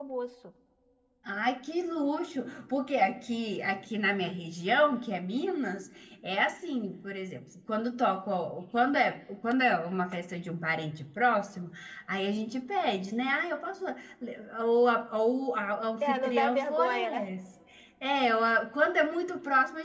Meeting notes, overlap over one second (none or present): present